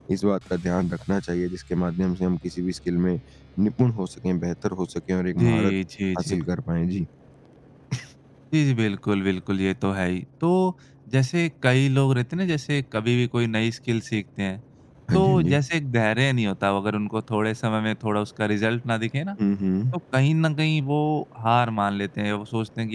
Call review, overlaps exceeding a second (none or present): none